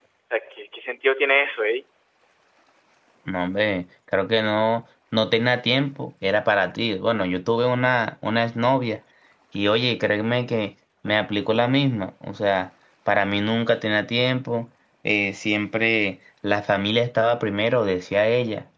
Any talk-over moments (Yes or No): No